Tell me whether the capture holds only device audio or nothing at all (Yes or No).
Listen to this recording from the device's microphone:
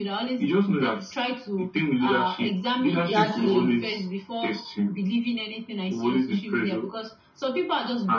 No